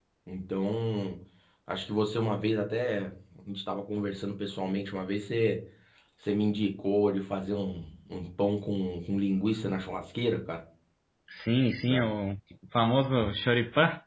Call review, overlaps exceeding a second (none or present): none